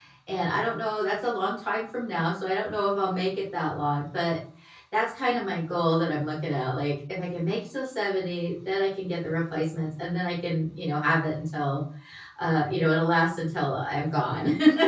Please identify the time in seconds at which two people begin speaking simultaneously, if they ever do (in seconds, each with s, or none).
none